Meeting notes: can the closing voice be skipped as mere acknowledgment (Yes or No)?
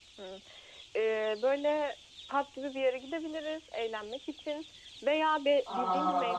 Yes